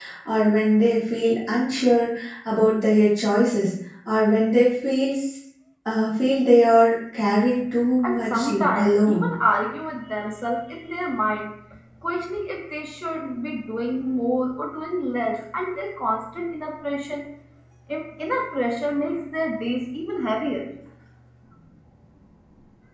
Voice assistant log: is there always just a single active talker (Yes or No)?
No